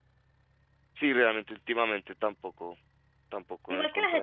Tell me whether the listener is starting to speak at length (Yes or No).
Yes